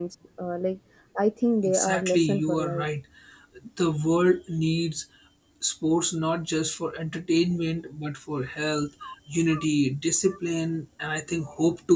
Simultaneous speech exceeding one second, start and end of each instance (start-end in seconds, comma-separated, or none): 1.6-2.8